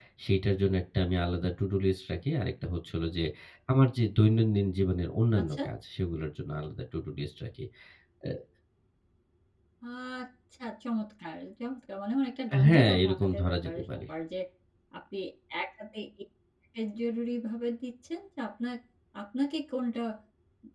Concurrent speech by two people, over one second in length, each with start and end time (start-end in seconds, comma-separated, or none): 12.7-14.0